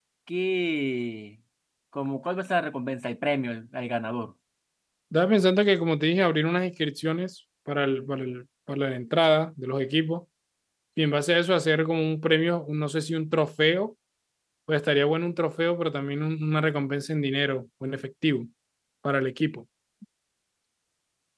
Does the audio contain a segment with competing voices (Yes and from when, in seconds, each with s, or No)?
No